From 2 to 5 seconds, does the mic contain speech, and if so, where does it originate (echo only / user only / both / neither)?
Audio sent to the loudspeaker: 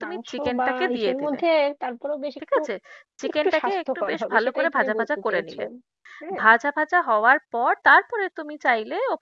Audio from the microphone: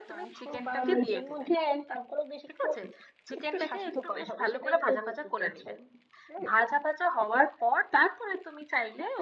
echo only